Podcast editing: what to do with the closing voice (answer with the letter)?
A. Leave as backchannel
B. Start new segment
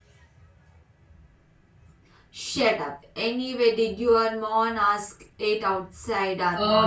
B